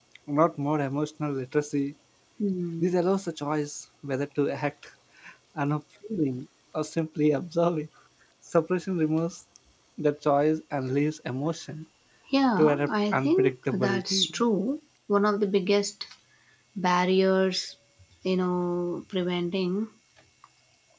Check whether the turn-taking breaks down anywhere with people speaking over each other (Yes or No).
Yes